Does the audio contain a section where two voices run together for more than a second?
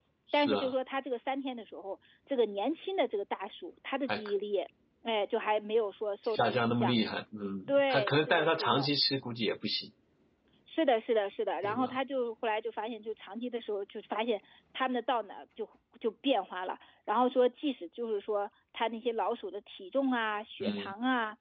Yes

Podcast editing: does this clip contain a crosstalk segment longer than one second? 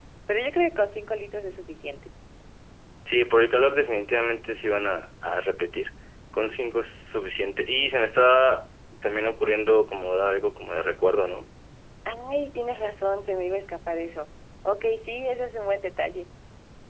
No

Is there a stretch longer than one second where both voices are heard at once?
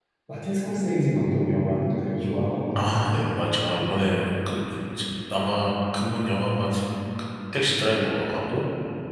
No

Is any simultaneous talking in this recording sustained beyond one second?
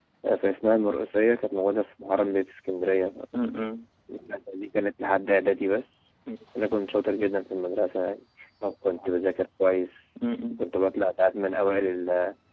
No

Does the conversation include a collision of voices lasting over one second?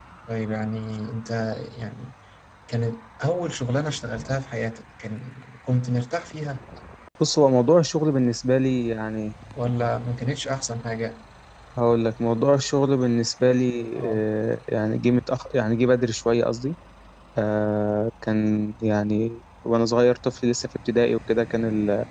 No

